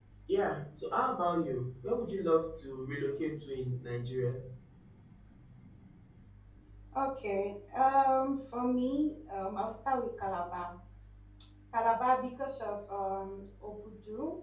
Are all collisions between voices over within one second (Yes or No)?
Yes